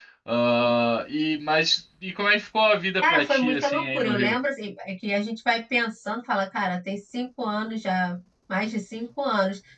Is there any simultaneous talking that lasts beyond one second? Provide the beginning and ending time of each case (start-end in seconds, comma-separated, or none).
3.0-4.4